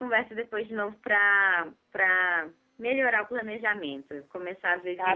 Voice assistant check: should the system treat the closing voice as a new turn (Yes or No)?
Yes